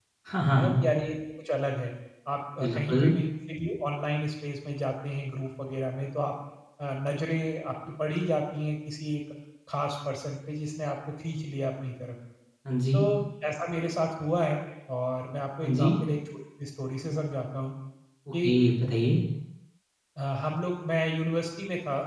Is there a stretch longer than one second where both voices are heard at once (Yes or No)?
No